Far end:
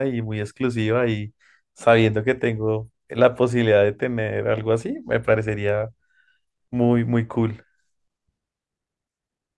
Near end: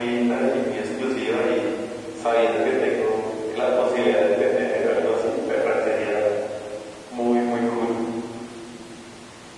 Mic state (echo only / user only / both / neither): echo only